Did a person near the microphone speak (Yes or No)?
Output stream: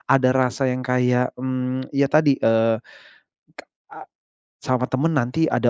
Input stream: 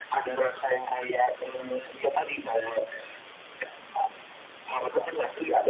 No